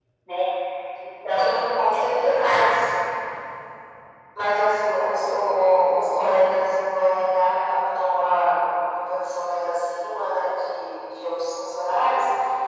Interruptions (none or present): present